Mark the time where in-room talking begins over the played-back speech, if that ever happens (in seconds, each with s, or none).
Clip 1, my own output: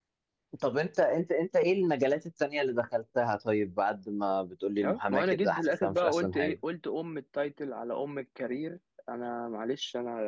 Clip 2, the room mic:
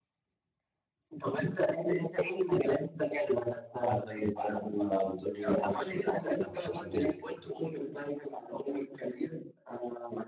none